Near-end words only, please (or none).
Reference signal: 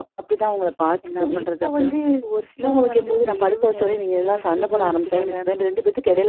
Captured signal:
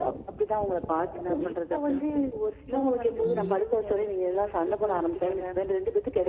அ.